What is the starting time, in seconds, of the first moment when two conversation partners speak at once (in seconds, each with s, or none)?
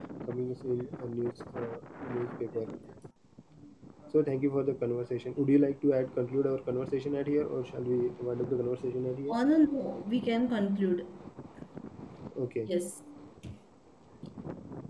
none